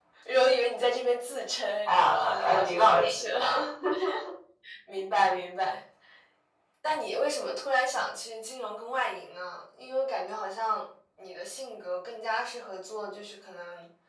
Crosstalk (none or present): present